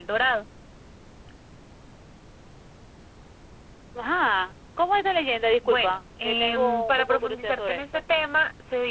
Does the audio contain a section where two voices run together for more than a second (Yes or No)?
Yes